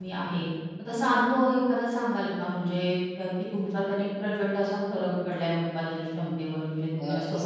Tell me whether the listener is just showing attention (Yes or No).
No